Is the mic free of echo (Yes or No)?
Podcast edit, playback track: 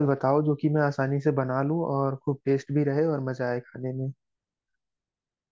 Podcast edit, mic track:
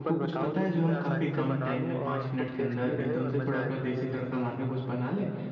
No